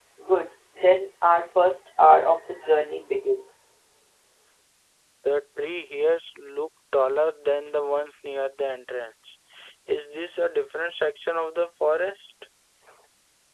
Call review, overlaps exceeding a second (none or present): none